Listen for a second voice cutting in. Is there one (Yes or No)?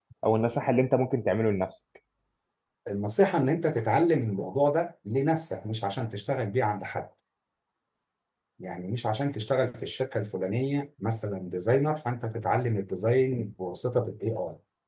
No